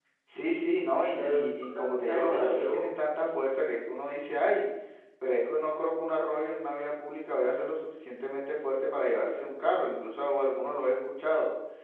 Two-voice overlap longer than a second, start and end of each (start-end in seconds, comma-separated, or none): 1.1-2.9